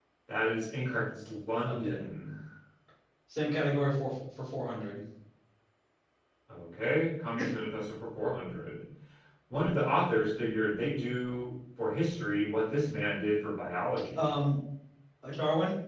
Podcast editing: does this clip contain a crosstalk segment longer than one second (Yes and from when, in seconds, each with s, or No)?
No